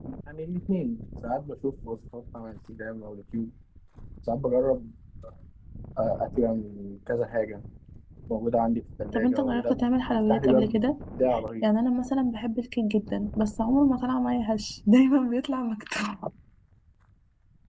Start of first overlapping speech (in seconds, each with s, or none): 9.1 s